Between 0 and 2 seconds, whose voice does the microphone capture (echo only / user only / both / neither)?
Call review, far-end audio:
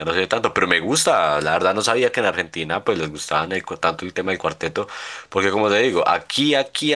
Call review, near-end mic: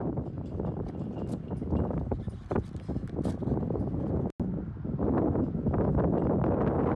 neither